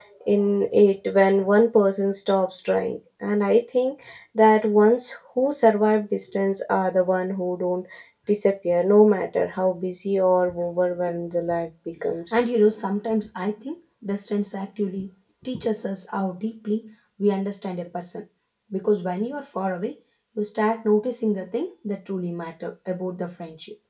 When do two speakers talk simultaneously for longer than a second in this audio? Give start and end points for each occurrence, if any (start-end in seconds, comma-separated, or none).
none